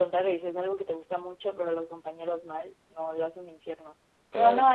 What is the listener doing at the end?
listening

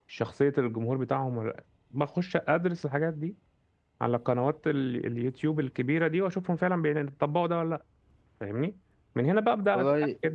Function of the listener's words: listening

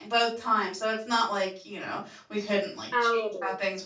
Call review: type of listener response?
listening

